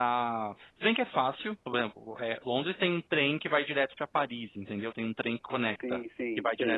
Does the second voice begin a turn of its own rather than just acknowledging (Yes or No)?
Yes